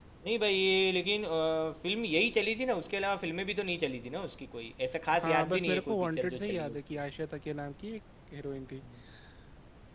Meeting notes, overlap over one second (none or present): present